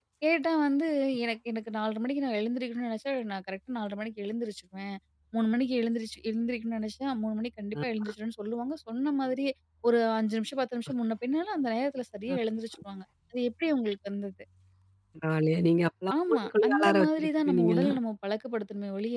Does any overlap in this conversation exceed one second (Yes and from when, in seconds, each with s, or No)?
Yes, from 16.1 s